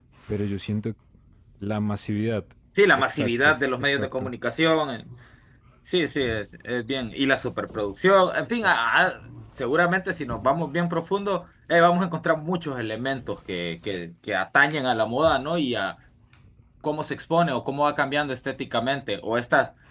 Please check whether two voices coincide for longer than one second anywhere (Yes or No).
Yes